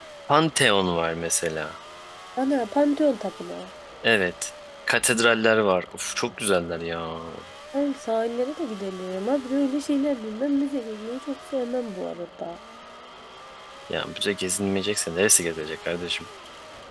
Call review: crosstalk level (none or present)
none